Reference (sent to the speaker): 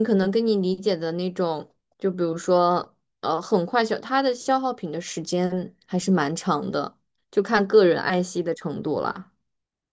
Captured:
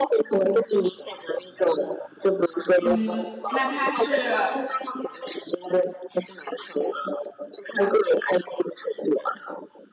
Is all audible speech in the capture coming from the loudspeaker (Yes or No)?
No